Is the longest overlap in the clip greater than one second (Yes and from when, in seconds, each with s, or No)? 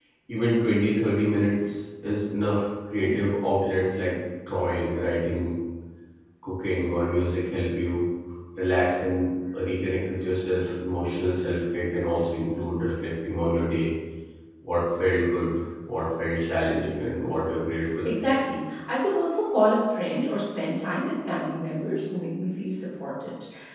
No